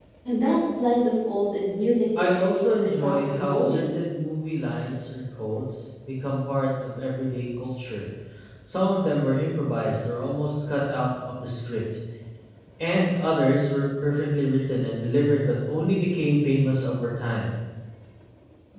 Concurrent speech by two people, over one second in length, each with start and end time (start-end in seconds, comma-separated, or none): 2.2-3.9